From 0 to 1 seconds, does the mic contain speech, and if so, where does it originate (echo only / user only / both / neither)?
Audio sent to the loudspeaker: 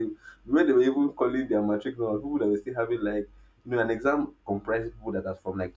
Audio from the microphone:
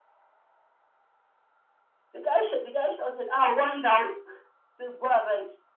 neither